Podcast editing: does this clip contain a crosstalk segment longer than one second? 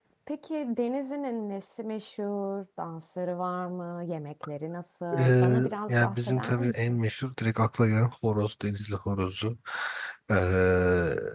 Yes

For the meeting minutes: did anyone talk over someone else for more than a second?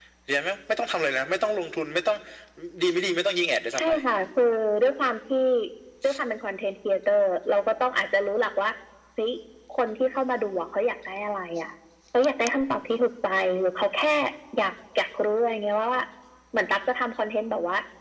No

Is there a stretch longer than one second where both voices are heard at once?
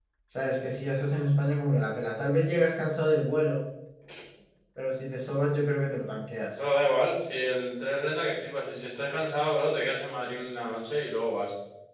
No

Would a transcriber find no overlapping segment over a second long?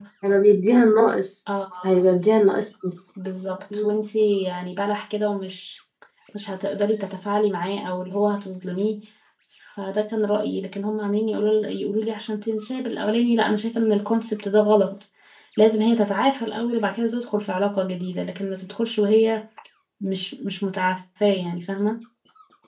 Yes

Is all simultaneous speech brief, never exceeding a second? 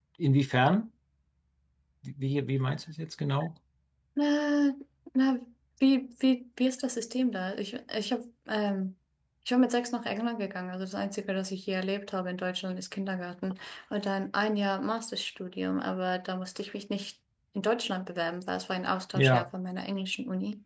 Yes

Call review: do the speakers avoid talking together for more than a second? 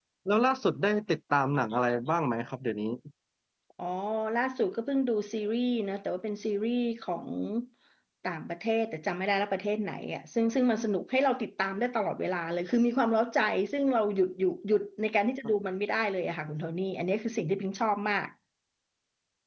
Yes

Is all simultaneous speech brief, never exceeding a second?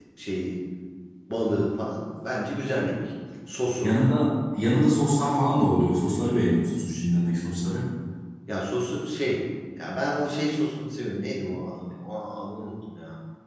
Yes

